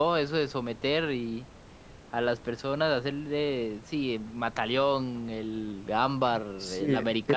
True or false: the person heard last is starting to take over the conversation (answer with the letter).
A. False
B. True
B